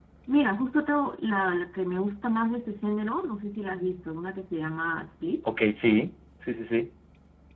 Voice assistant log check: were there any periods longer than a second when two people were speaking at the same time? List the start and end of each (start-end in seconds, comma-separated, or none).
none